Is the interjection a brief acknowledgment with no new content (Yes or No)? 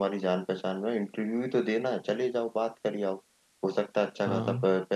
Yes